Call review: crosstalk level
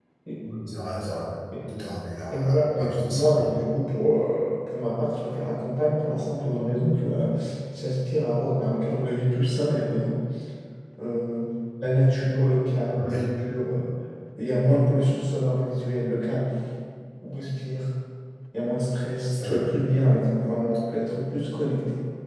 present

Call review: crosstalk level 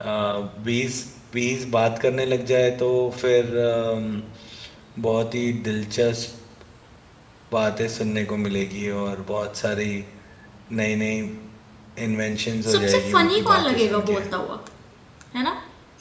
present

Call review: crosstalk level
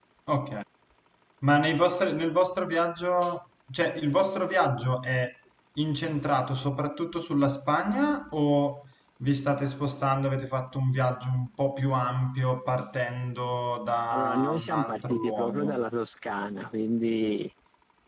present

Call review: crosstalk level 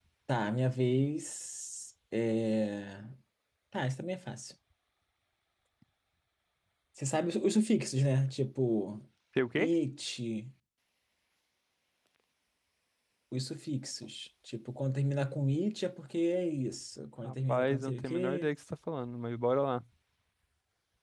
present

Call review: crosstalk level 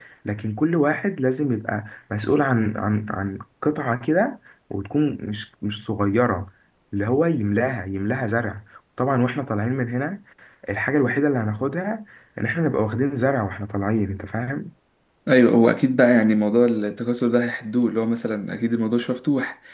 none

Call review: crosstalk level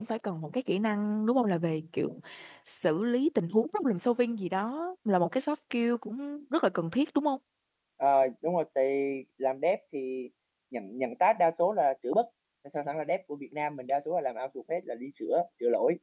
none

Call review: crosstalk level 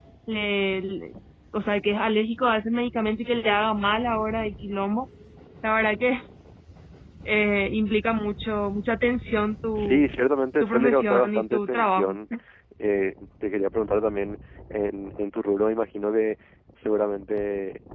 present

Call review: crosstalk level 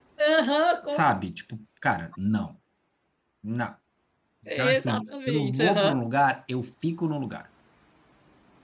present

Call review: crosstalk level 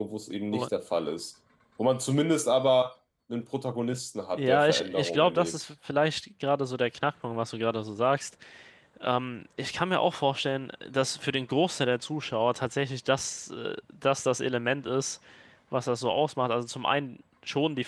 present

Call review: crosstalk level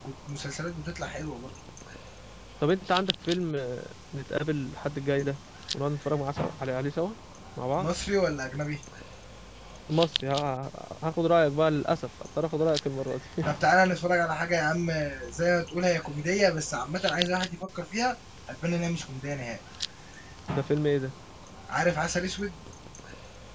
none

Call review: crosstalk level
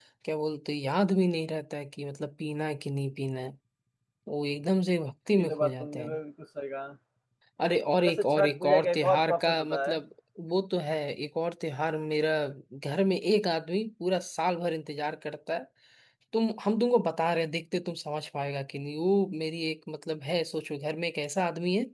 present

